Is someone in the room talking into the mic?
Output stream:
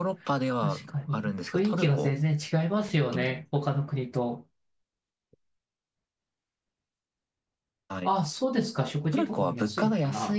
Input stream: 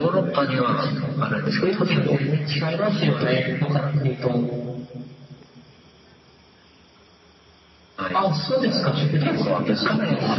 Yes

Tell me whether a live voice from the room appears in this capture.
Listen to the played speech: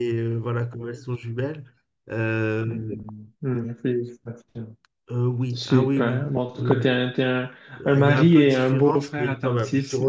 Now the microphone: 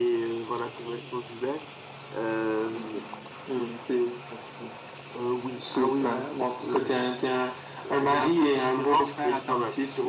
No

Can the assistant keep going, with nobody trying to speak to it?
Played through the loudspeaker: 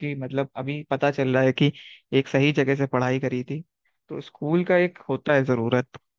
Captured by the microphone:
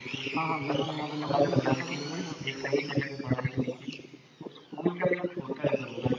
No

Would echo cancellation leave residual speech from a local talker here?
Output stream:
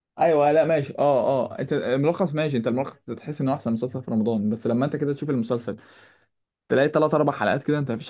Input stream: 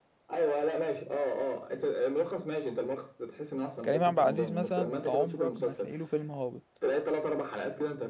Yes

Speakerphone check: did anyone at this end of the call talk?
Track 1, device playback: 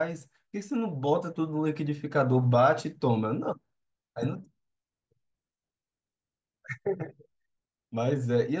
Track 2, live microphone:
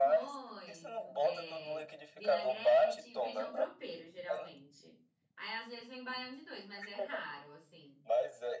Yes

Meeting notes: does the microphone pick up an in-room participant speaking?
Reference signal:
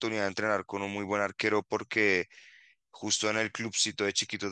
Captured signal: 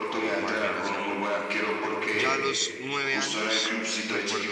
Yes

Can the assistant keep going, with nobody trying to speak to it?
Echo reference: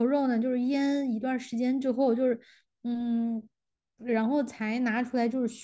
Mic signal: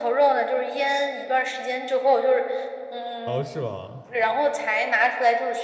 No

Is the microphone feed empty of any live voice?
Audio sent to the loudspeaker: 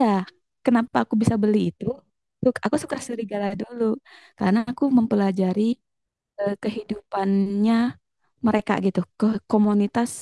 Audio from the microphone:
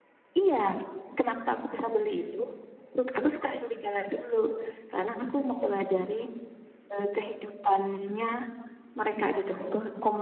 Yes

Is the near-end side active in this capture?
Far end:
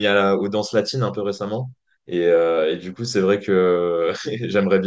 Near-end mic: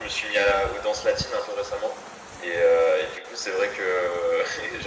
No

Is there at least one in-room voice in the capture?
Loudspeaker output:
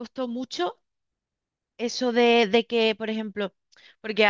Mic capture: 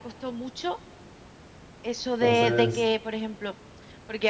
Yes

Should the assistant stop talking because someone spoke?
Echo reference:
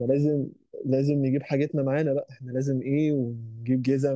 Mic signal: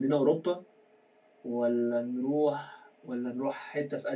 Yes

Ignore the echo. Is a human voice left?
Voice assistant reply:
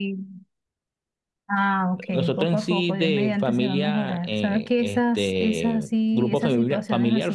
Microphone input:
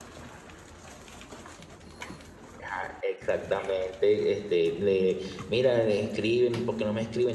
Yes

